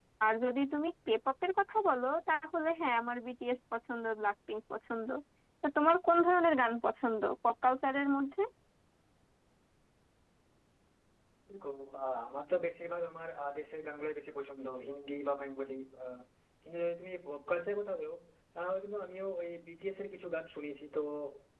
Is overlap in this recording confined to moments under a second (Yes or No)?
Yes